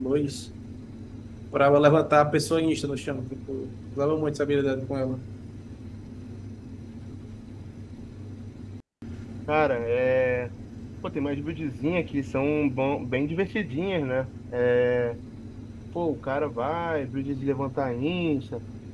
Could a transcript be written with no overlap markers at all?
Yes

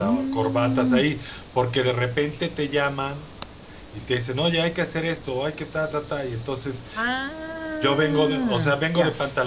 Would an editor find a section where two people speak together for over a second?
Yes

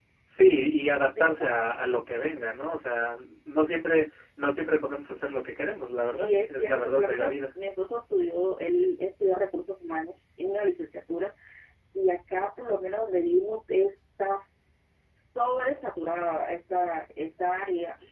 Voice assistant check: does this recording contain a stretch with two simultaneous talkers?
Yes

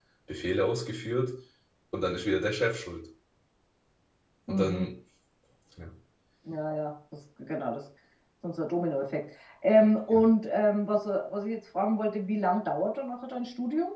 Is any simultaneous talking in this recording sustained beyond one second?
No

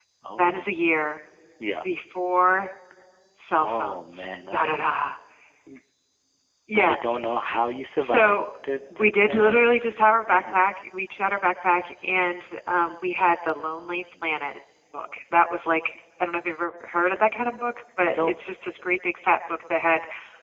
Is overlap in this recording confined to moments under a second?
No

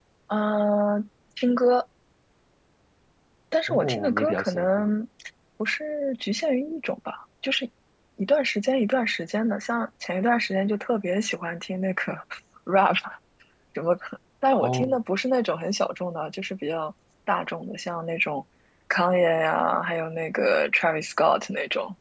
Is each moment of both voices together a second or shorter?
No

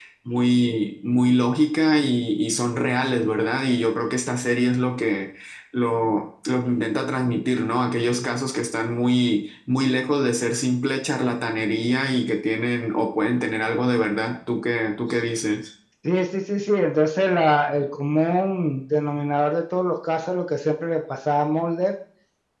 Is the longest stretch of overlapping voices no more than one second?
Yes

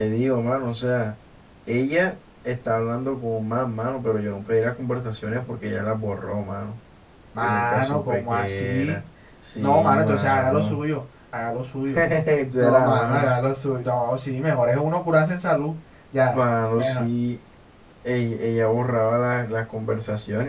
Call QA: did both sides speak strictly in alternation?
No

